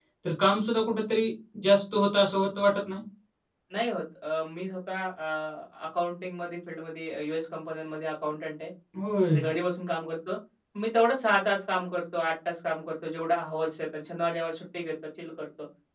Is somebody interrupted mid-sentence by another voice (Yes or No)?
No